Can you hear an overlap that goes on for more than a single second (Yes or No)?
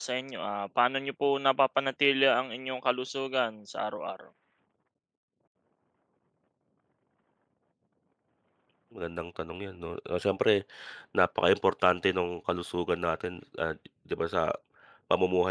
No